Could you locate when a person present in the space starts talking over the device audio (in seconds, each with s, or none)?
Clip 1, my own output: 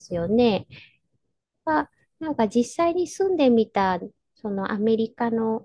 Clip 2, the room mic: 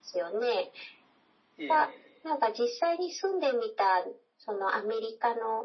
1.6 s